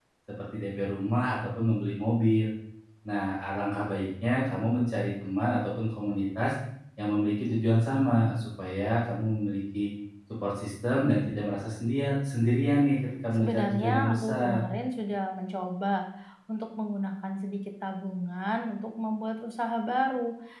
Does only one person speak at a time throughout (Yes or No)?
No